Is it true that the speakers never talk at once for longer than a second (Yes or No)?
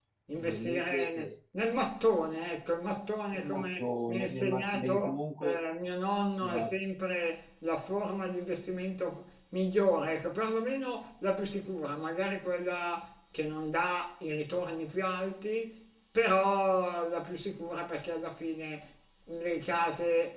No